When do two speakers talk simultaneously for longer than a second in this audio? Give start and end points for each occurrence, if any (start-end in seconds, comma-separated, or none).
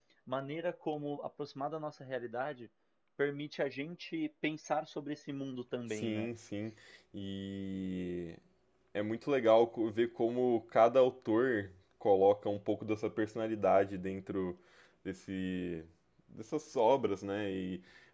none